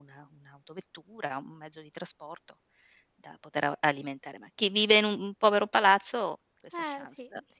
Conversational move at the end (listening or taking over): taking over